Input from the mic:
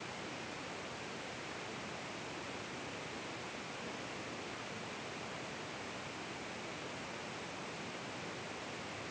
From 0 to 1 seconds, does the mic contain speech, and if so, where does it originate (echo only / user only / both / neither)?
neither